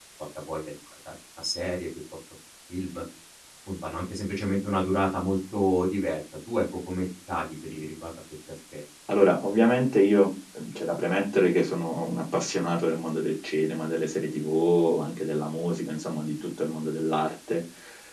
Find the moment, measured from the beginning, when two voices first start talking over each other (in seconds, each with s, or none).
none